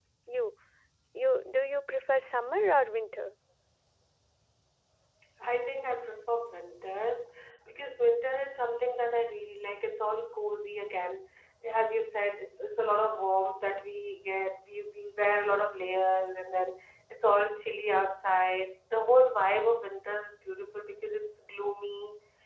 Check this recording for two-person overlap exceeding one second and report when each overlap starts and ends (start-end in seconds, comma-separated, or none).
none